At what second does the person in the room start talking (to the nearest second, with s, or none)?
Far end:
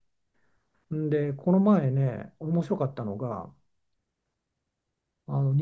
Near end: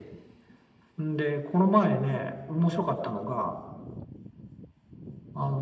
none